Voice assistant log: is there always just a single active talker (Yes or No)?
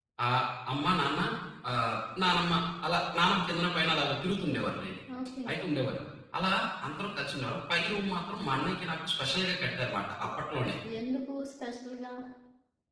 Yes